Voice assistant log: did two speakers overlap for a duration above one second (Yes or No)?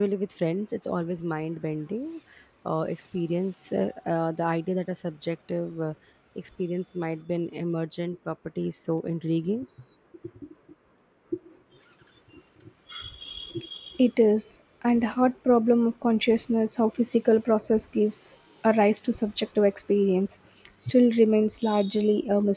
No